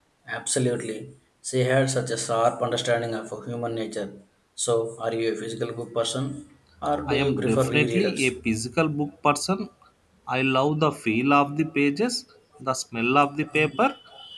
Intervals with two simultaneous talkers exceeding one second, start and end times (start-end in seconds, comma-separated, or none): 7.1-8.3